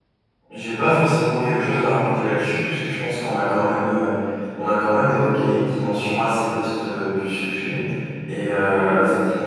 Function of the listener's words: listening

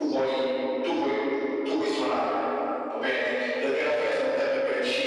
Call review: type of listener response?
listening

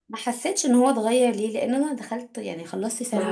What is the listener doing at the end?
taking over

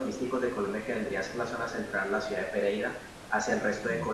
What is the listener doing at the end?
listening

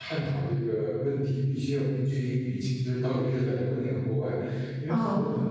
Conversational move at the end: listening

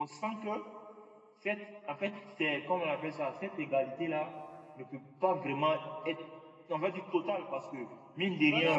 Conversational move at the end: taking over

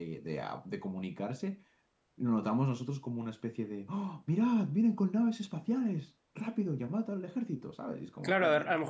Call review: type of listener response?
taking over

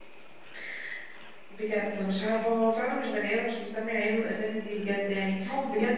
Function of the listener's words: listening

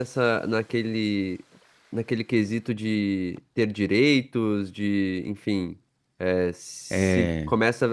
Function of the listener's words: listening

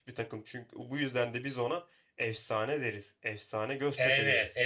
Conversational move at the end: taking over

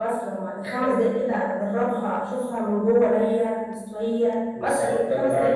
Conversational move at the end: taking over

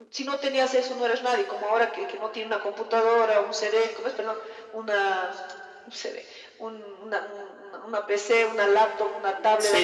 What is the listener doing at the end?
listening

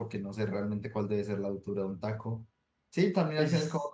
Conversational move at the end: listening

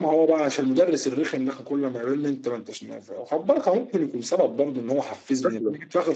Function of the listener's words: taking over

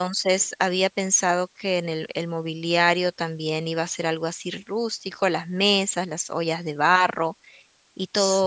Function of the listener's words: listening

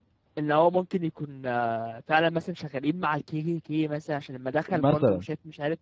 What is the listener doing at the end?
listening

